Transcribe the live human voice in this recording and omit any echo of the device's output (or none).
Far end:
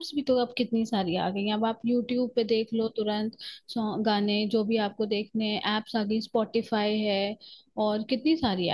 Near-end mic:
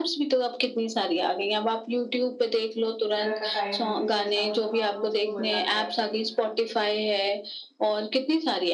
वगैरह का टाइम हो, कुछ ऐसा हो तो हाँ, वो चलो बजा लिया।